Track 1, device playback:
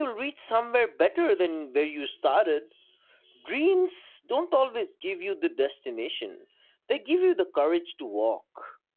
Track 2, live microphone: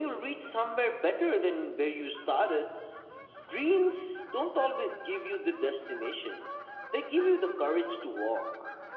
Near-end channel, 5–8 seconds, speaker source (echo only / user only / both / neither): echo only